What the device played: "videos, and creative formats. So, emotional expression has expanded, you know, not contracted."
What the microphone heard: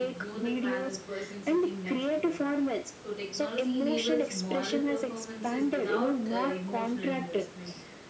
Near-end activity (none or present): present